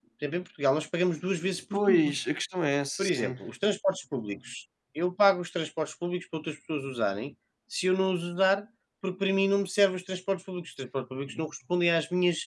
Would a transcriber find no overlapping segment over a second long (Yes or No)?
Yes